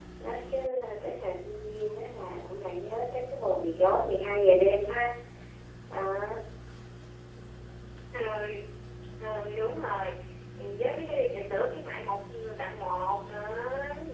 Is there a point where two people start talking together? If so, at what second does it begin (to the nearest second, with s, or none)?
none